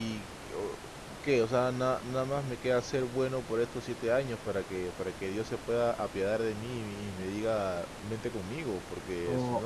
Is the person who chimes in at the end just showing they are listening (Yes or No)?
No